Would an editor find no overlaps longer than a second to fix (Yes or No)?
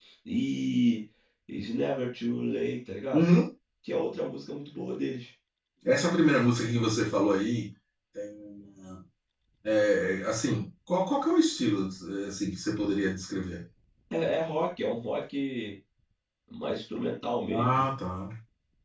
Yes